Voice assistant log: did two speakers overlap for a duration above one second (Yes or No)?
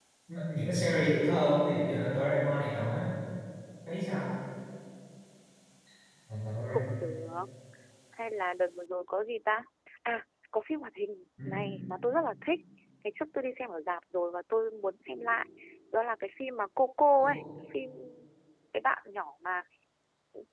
No